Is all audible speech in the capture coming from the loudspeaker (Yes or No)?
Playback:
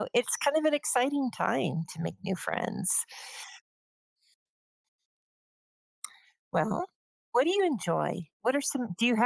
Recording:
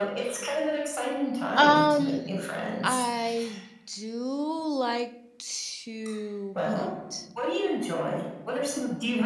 No